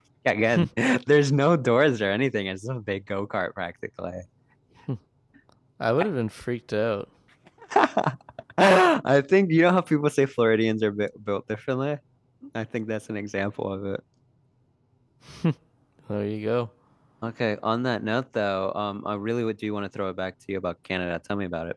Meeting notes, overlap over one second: none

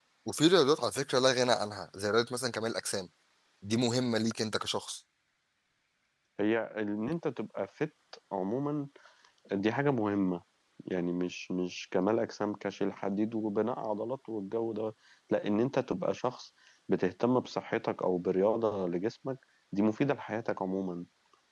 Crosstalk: none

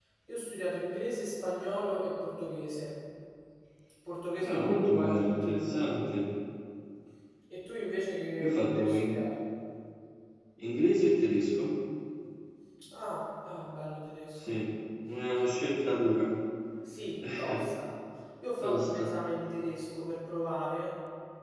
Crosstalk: present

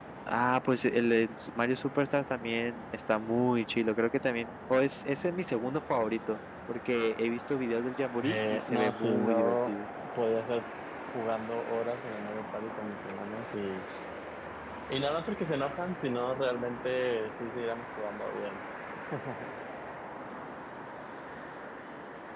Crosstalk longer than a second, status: present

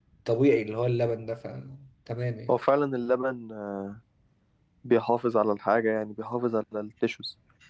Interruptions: none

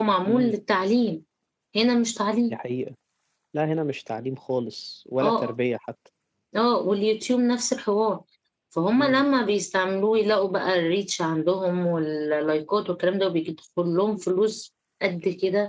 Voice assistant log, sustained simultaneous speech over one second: none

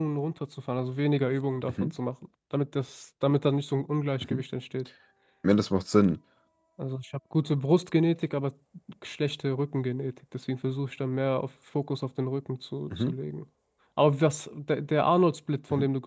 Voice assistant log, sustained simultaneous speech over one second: none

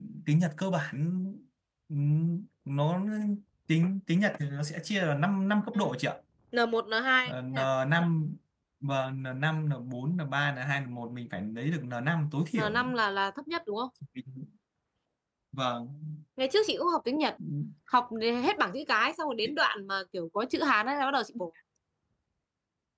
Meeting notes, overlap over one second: none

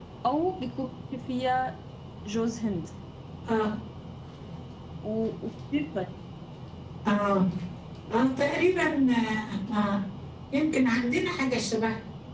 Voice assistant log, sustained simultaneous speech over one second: none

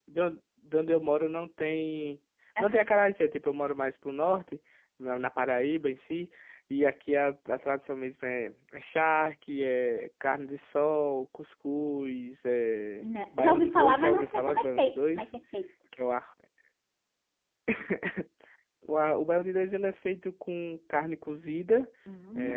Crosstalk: present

